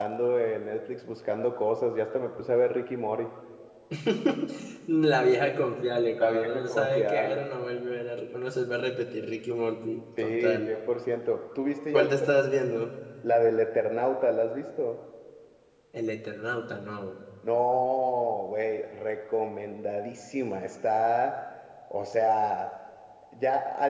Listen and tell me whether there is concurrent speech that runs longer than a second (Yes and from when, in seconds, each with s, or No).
Yes, from 6.2 s